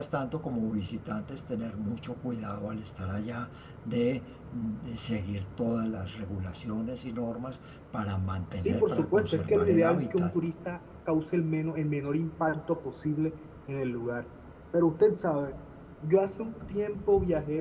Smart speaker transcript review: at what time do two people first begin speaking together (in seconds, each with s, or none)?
8.6 s